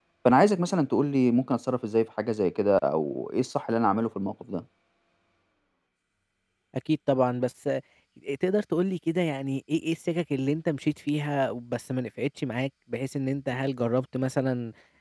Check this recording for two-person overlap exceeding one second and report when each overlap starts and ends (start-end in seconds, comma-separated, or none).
none